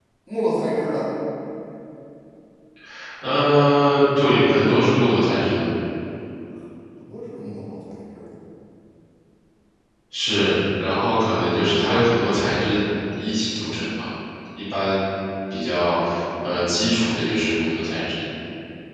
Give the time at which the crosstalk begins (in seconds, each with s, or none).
none